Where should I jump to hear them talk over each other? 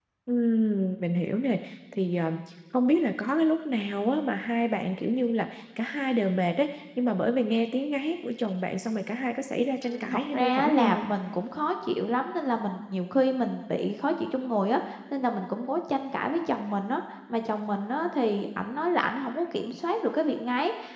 9.8 s

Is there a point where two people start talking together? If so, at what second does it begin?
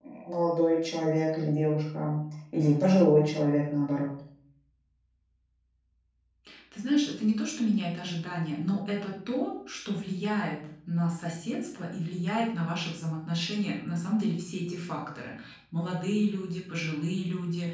none

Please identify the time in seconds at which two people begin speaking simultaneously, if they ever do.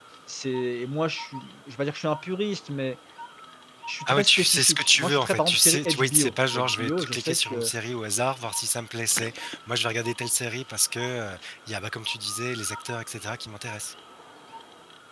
4.1 s

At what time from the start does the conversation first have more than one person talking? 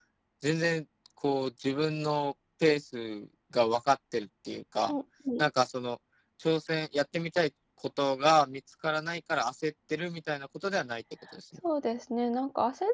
none

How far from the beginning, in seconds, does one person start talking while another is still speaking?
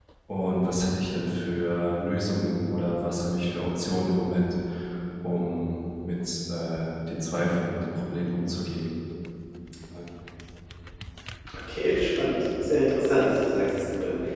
none

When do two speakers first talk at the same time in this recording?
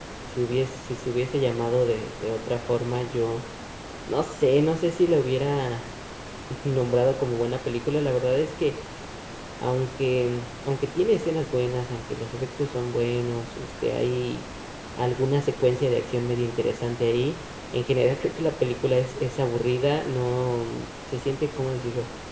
none

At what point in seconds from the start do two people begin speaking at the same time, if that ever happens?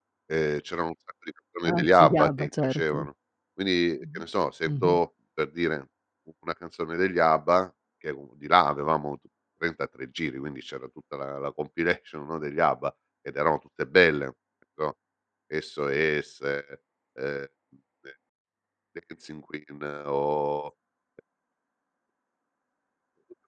1.6 s

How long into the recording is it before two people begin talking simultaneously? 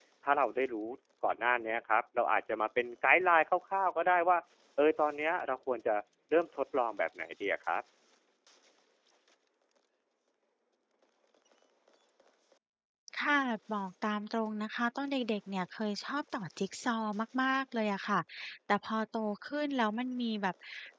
none

